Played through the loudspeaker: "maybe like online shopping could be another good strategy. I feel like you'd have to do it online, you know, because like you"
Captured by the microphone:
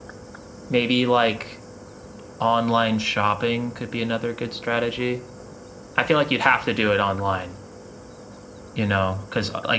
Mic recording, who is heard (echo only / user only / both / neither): echo only